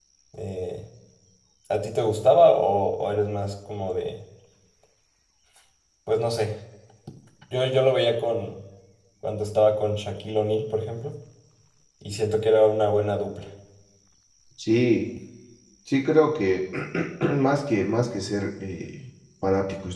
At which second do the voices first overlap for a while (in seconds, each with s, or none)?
none